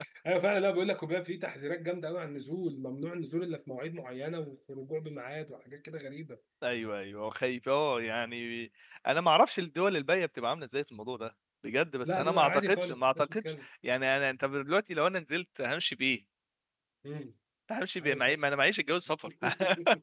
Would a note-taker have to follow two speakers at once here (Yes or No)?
Yes